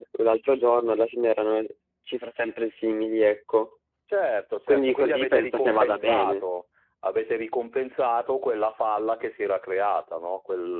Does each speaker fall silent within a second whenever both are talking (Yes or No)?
No